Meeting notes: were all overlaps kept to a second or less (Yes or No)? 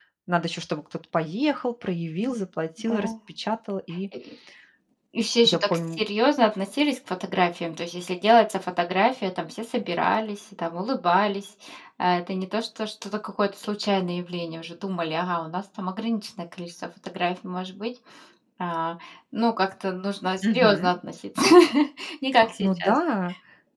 Yes